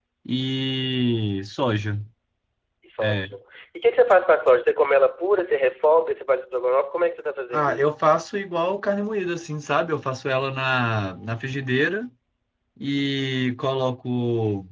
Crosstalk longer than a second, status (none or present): none